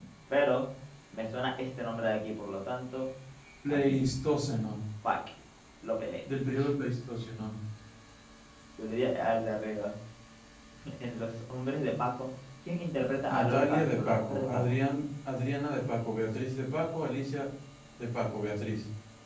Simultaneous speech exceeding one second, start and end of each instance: 13.3-14.6

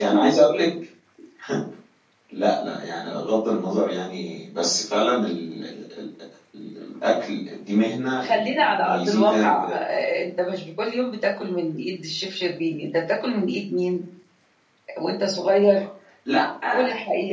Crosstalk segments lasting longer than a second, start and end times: 8.3-9.8

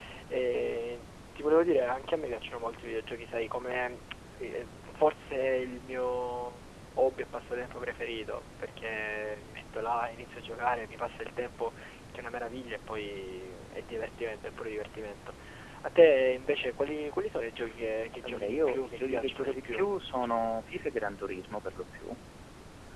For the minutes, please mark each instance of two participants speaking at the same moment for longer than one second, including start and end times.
18.2-19.8

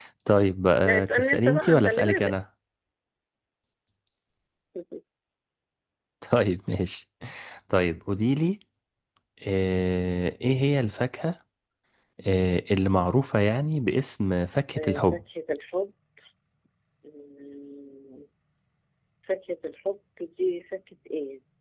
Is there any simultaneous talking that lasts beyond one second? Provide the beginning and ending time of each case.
0.8-2.3

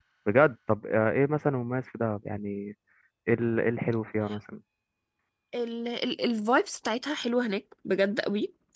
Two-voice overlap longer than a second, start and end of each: none

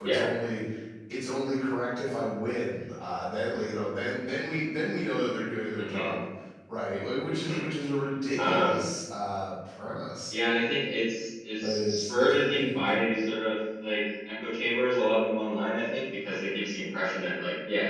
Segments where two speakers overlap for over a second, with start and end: 11.6-12.9

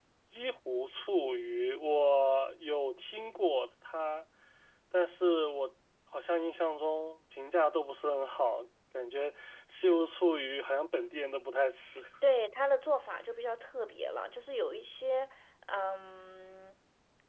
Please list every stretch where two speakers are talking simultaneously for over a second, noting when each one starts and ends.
none

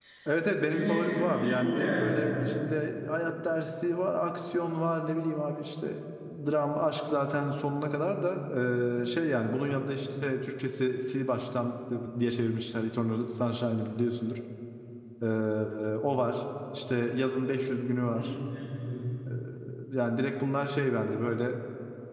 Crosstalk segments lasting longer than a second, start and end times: 0.7-2.0

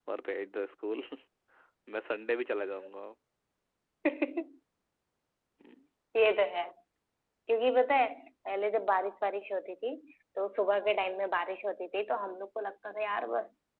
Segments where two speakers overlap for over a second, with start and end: none

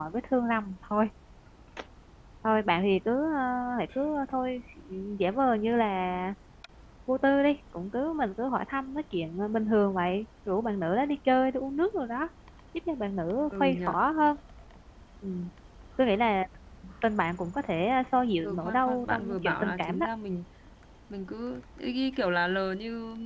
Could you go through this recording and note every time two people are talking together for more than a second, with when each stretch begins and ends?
18.4-20.1

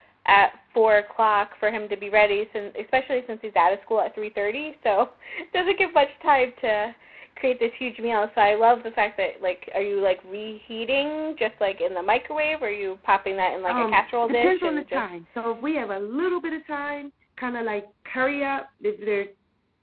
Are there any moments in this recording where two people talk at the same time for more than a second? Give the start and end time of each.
13.7-15.1

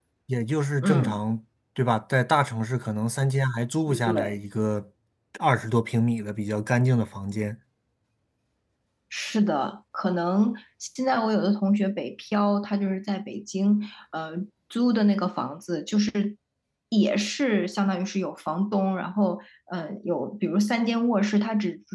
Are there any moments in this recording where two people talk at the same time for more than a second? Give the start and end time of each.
none

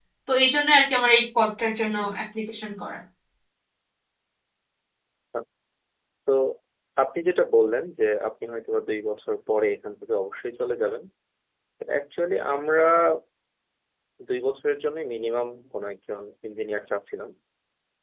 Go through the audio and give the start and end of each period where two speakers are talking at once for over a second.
none

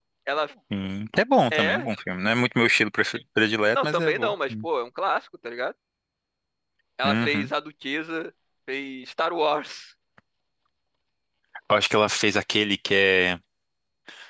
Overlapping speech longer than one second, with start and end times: none

